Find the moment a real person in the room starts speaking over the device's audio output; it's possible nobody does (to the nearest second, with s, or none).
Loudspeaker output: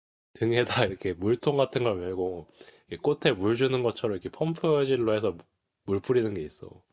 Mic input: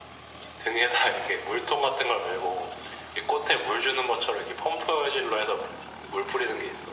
none